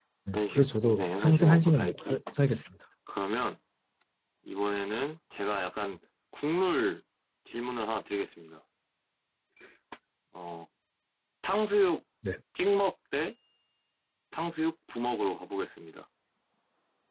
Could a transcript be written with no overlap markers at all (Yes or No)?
No